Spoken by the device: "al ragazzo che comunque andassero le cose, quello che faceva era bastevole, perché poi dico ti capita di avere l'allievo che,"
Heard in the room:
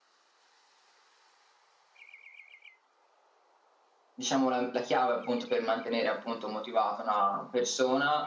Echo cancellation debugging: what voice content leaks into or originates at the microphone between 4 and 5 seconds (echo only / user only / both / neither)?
user only